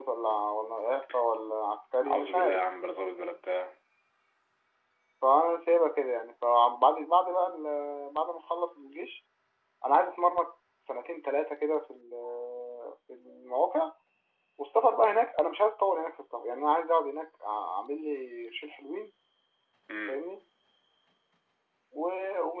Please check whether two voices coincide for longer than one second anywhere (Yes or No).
No